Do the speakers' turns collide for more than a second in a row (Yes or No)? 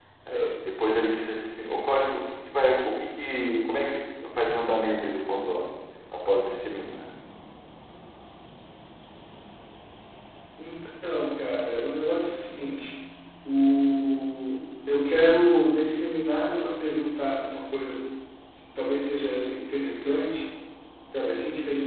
No